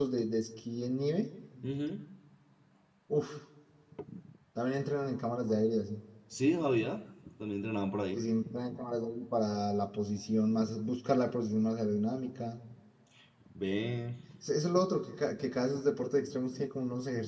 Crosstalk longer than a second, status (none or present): none